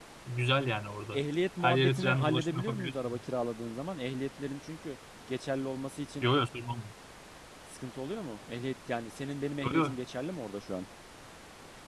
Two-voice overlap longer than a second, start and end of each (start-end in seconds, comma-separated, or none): 1.6-3.2